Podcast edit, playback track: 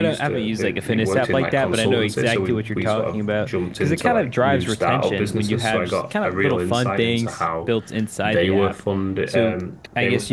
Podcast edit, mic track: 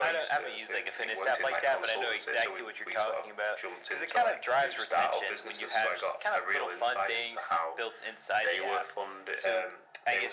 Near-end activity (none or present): none